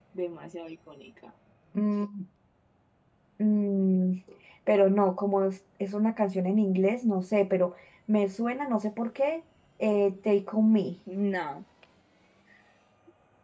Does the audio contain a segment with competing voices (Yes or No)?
No